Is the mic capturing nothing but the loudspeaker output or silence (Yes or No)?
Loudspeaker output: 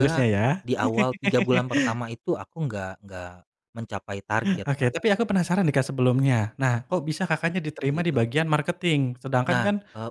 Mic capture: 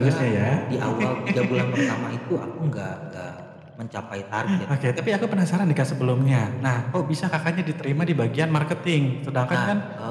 Yes